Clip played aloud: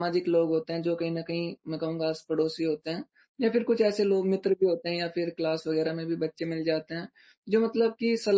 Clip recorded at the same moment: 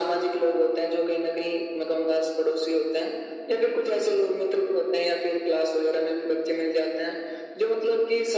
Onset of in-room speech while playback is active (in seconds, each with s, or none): none